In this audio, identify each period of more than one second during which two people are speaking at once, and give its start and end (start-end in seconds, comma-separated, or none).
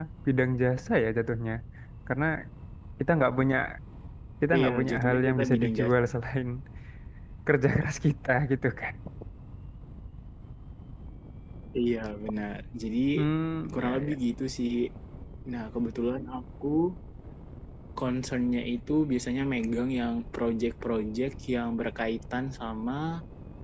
4.6-6.0